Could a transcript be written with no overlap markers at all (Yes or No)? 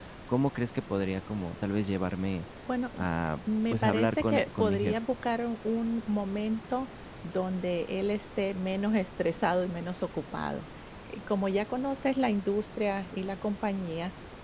No